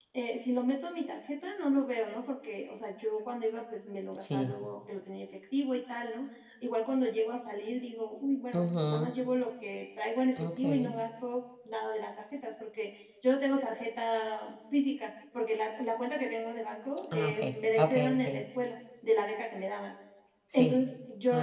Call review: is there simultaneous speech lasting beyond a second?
Yes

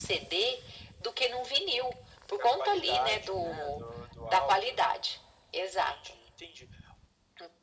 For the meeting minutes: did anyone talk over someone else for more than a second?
Yes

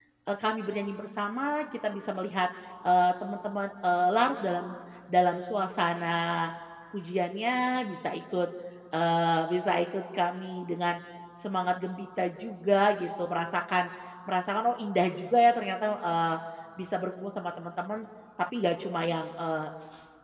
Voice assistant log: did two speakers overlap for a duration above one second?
No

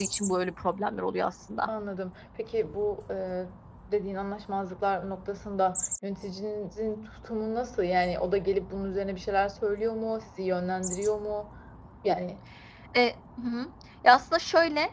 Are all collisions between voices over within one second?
Yes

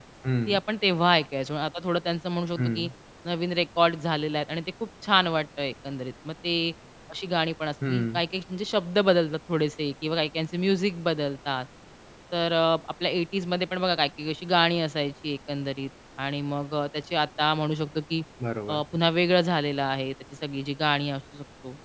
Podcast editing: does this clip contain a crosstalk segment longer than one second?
No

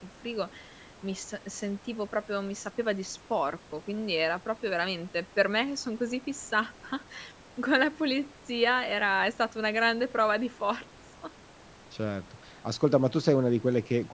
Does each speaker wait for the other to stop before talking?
Yes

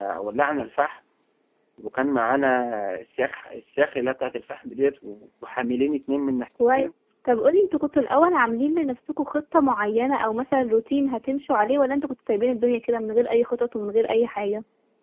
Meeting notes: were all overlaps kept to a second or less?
Yes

